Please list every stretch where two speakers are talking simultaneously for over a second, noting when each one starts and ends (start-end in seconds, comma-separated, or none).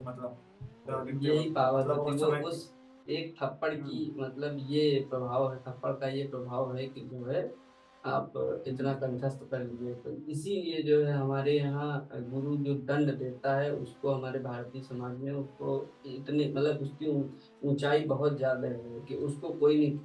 0.9-2.6